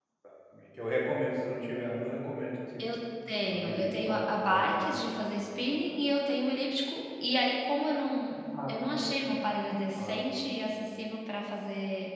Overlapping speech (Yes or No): Yes